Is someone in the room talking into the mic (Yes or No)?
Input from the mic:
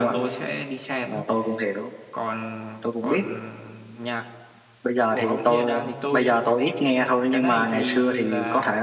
No